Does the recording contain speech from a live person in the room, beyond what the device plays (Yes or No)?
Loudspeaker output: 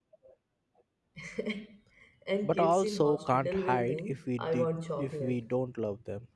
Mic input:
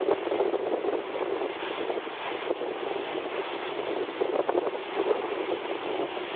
No